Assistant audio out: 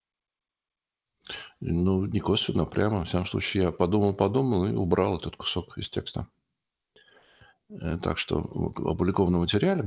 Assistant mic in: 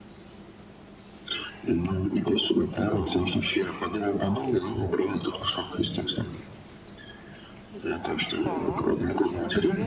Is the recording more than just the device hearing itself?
Yes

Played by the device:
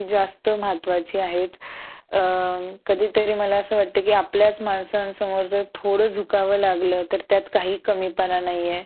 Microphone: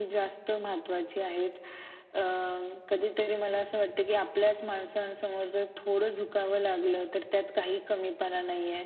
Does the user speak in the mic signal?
No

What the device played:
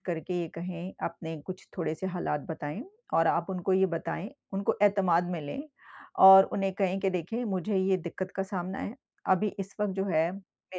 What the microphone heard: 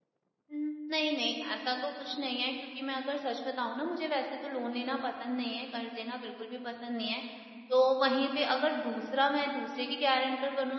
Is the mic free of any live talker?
No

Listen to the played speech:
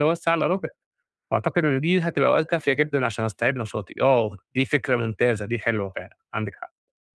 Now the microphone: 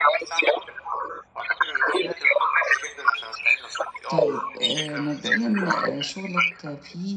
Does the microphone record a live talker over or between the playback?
Yes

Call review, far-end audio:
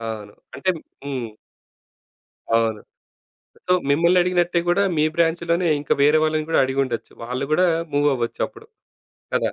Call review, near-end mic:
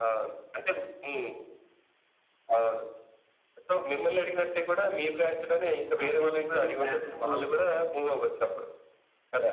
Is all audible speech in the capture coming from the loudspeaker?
No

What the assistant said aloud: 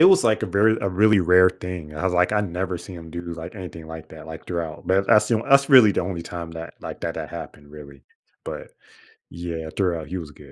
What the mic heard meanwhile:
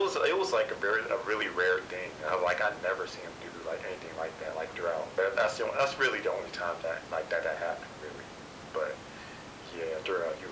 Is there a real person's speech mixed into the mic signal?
No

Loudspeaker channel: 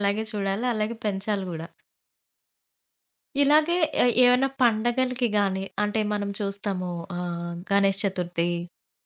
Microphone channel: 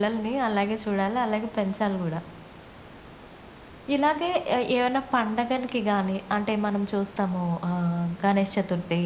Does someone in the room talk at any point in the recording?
No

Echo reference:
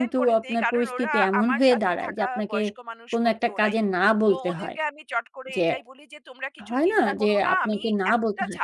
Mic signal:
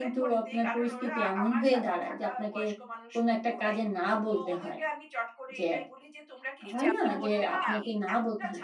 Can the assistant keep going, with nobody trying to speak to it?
No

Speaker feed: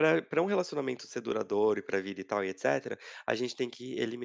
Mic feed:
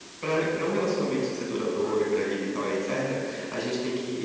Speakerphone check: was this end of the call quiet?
Yes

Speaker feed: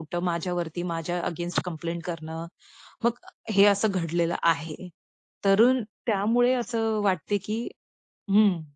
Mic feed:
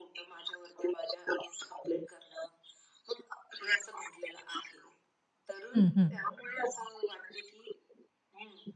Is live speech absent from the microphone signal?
No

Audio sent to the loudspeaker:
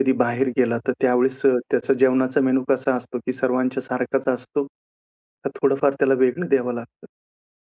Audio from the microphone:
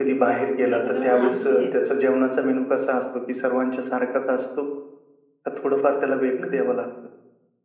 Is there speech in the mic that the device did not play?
Yes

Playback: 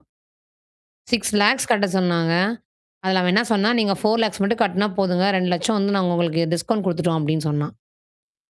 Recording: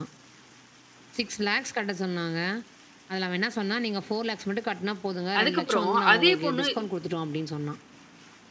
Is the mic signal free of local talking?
No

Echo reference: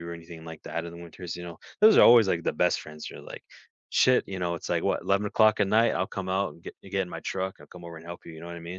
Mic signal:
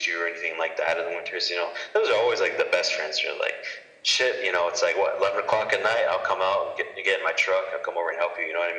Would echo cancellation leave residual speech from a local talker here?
No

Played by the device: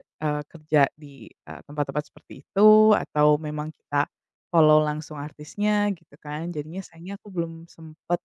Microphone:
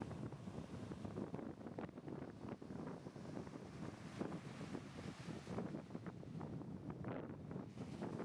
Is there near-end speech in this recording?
No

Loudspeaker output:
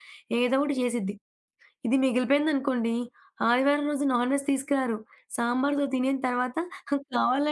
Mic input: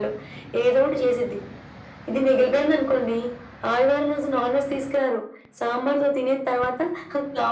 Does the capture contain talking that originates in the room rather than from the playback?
No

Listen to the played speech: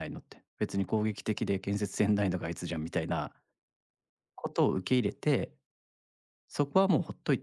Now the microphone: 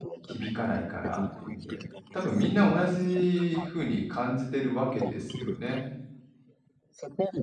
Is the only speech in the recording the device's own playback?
No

